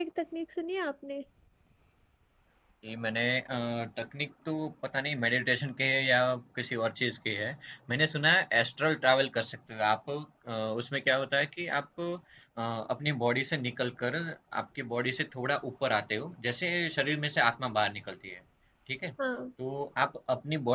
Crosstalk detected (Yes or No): No